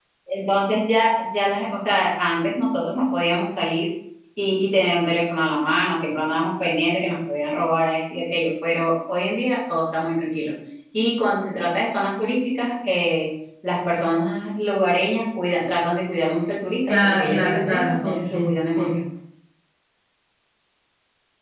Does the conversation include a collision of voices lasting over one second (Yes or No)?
Yes